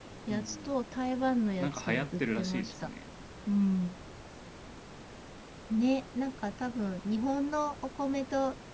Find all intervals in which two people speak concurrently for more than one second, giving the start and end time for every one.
1.6-2.9

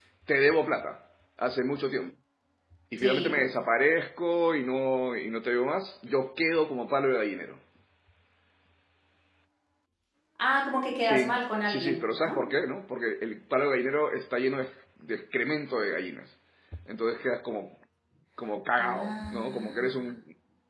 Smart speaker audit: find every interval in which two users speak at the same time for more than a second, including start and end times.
10.9-12.4, 18.8-20.0

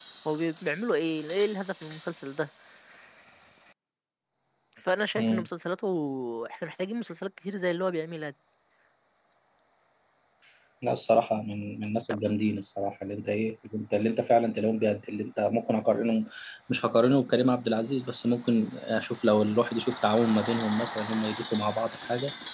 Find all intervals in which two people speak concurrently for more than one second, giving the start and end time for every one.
none

